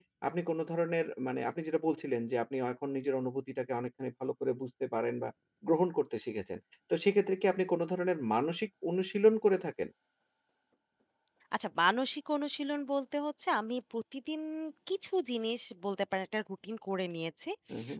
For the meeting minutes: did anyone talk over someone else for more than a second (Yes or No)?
No